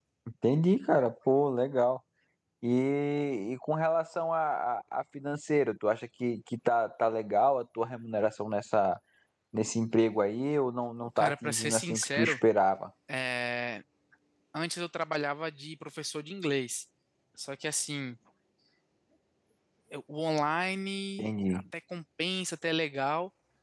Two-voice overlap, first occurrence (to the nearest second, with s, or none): 11 s